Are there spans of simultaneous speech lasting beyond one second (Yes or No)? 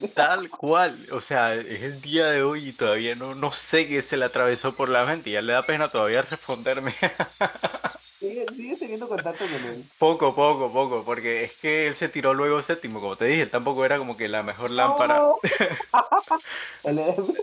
No